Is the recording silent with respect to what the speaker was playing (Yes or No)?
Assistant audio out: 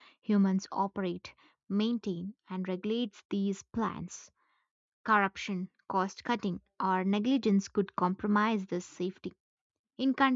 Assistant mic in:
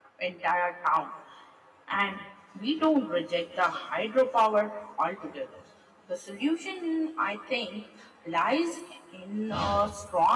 Yes